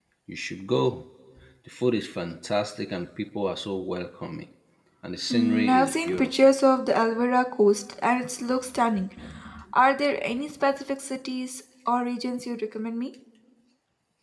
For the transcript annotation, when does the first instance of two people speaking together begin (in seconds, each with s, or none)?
5.3 s